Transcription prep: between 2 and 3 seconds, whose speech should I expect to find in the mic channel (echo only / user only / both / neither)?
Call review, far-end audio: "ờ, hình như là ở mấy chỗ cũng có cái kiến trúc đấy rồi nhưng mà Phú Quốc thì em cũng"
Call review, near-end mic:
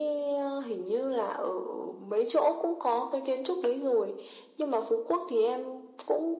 echo only